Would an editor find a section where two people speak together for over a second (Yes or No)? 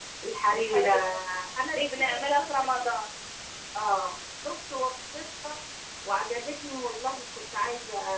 Yes